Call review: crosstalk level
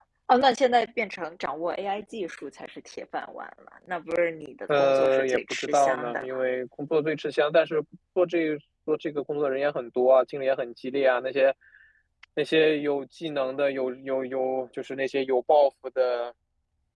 present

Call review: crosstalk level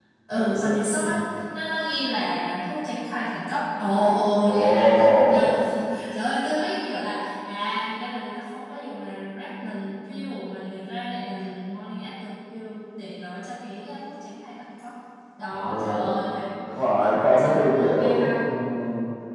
present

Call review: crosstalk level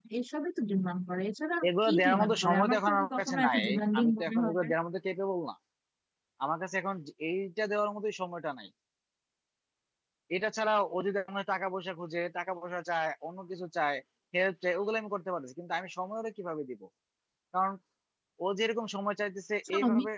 present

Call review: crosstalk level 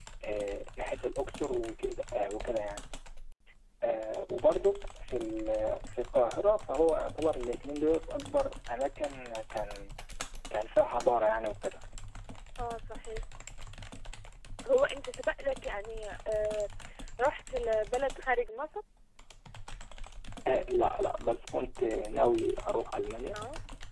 none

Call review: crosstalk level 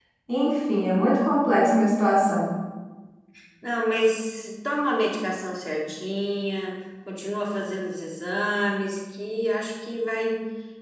none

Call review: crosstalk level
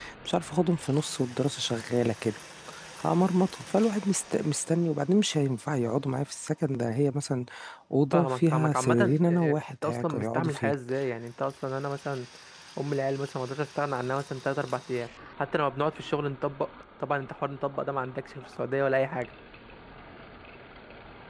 present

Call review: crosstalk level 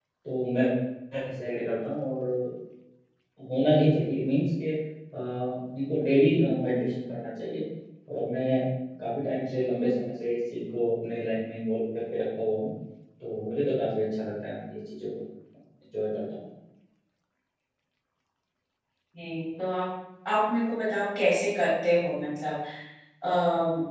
none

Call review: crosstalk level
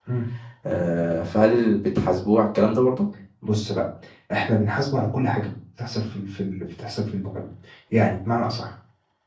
none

